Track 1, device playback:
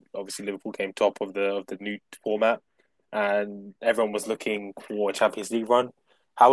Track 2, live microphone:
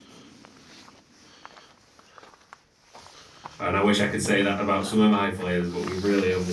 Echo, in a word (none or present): none